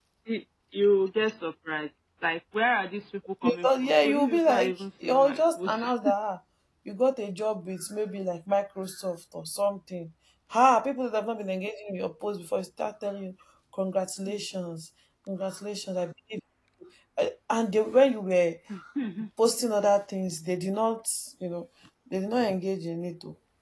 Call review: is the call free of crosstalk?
No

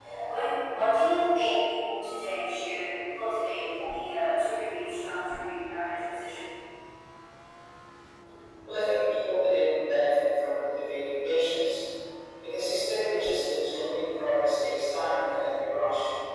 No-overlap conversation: Yes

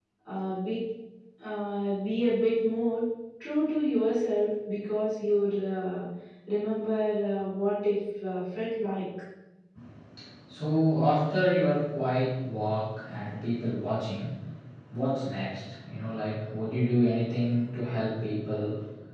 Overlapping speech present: No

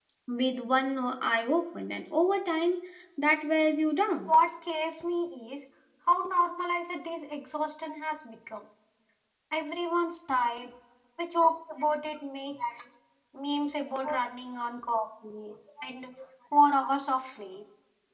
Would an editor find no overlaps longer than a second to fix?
Yes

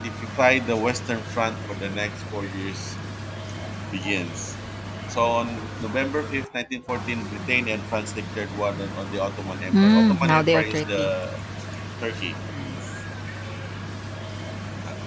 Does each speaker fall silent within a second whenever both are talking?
No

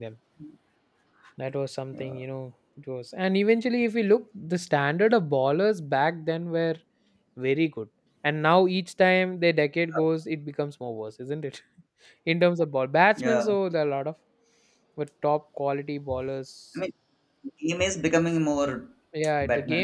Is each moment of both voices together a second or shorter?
Yes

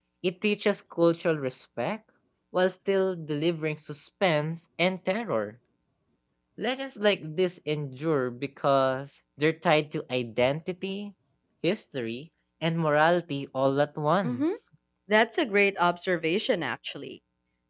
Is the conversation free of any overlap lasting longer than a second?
Yes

